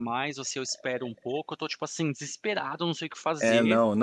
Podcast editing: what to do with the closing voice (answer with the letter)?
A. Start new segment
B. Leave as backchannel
A